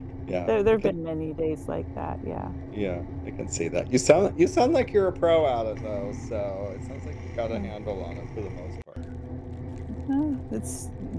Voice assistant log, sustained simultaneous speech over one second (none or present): none